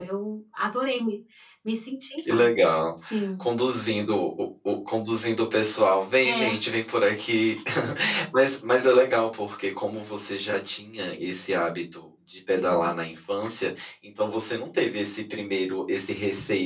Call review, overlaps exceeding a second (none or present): none